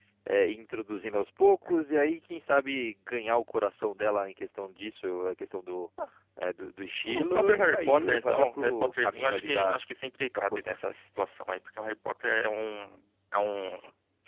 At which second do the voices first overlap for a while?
7 s

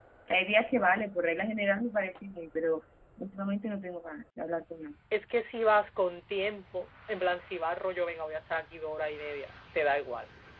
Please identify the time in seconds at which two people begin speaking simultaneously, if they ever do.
none

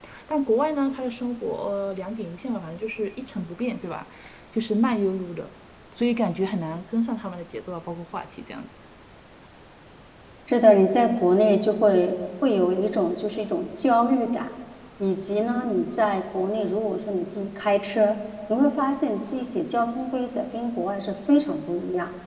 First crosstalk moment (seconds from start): none

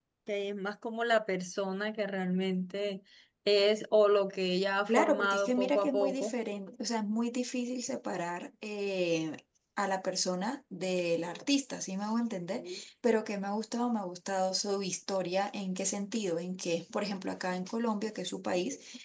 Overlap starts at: 5 s

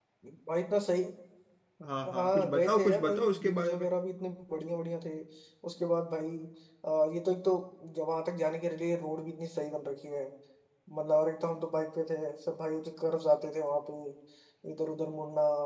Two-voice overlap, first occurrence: 2 s

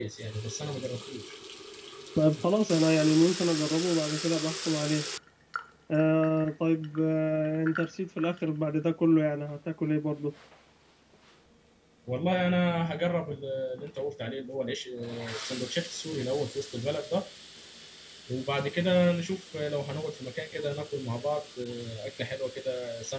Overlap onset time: none

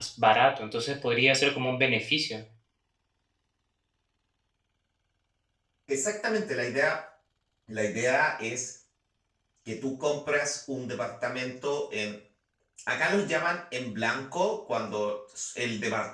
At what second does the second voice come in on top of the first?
none

